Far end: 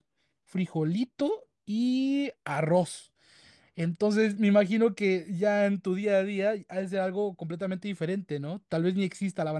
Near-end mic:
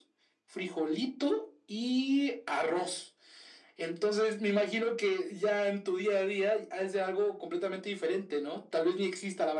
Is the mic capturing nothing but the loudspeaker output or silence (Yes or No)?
Yes